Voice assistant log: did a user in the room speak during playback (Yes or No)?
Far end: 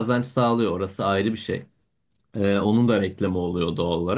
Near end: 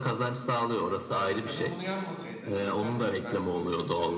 Yes